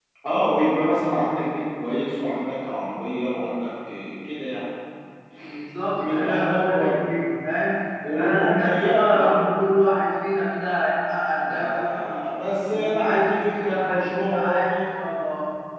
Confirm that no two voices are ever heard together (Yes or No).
No